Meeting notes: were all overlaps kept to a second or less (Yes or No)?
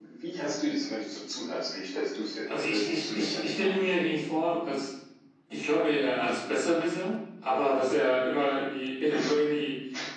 No